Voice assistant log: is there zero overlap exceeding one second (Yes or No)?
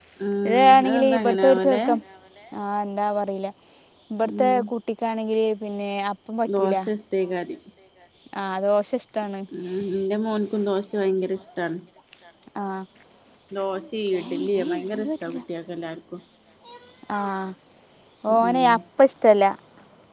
No